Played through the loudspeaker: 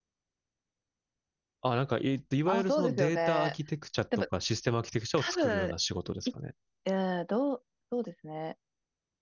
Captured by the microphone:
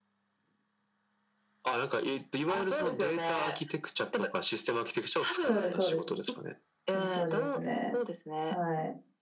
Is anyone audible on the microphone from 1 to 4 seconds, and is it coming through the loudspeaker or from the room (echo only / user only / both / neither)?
echo only